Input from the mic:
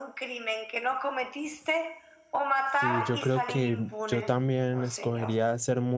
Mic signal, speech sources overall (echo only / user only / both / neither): both